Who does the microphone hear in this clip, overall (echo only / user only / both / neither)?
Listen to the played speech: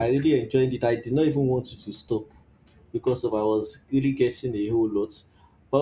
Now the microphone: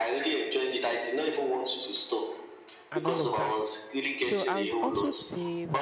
both